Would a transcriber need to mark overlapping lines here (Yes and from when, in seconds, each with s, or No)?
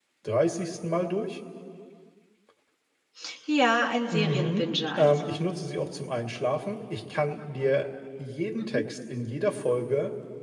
Yes, from 4.1 s